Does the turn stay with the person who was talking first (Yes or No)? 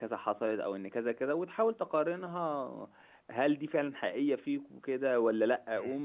Yes